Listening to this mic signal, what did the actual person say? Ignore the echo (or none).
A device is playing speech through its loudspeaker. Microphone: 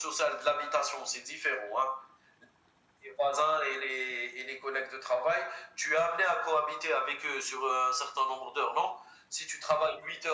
none